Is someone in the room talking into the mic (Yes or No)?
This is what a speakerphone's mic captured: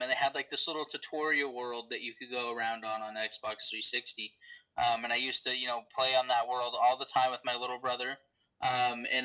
No